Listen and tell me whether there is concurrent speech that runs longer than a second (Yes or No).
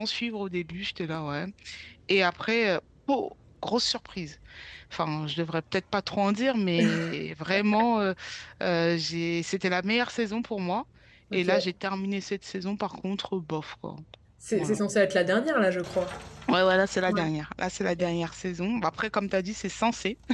No